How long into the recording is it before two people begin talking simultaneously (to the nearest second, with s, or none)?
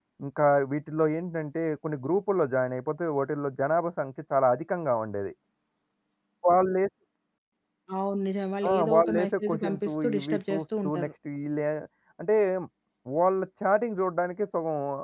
9 s